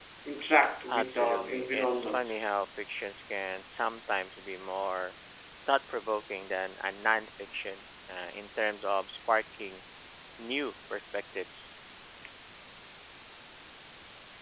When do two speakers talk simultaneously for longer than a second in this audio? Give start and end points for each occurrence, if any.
0.9-2.3

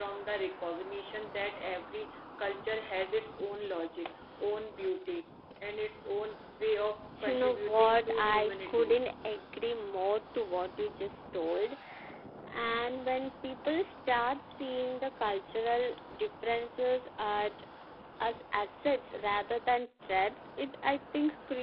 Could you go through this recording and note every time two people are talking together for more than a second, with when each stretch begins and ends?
7.2-9.0

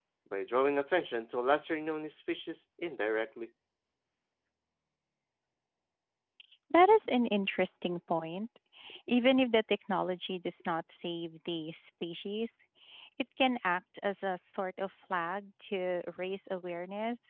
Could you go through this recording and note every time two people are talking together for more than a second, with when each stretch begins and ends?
none

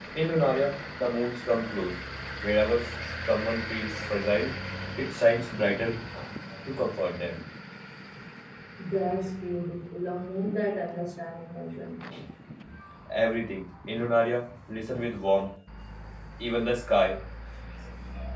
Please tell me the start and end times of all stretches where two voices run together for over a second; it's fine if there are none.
none

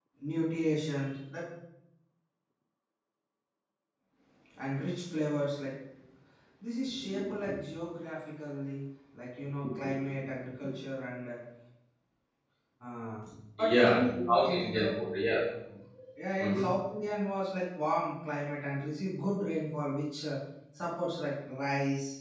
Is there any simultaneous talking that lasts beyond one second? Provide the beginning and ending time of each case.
13.6-14.9

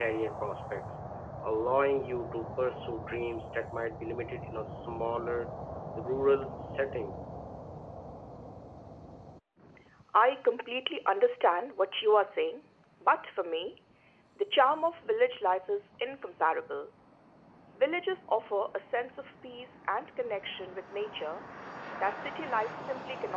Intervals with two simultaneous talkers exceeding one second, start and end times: none

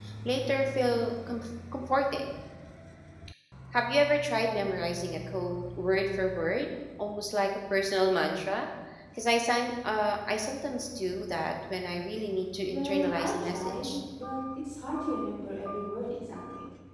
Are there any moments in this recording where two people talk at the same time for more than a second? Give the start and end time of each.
12.7-13.9

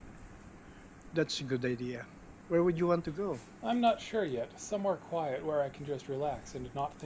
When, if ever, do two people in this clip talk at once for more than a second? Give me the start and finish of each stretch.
none

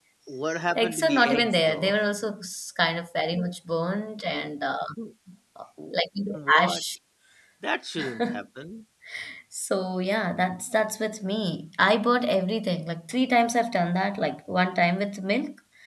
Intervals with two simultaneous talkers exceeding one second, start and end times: 0.8-2.0

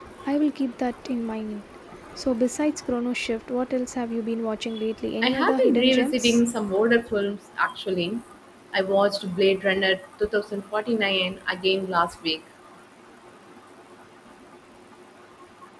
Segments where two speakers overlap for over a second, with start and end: 5.2-6.4

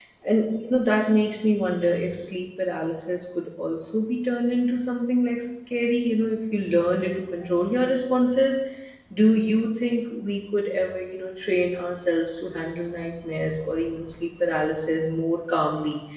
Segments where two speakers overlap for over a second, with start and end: none

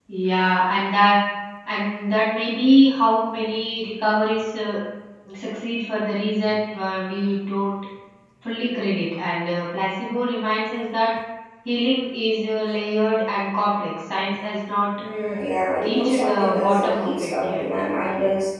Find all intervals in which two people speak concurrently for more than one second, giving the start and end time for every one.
15.8-17.6

